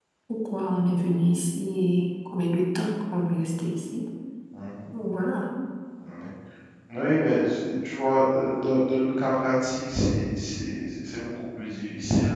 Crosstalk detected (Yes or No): No